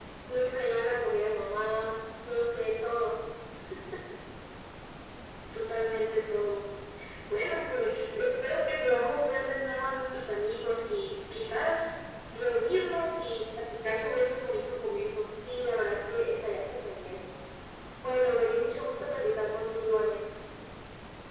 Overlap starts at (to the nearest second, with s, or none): none